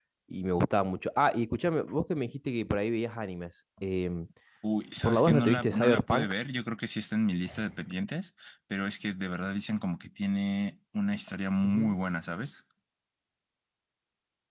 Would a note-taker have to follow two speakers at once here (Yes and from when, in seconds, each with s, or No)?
Yes, from 5.0 s